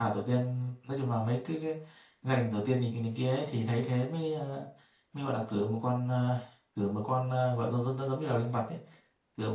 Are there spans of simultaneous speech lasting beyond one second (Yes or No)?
No